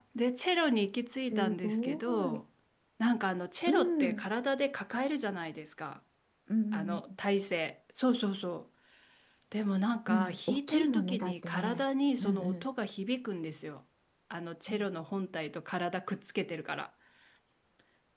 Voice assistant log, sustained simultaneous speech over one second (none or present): present